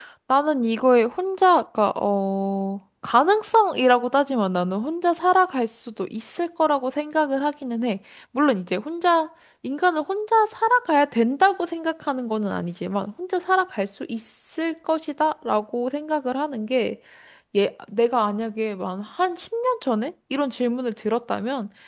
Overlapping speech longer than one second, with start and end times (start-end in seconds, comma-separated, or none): none